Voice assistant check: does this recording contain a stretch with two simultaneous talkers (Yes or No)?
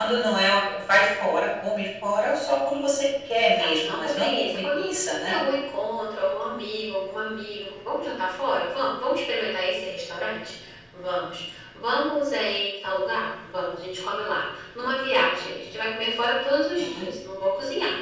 Yes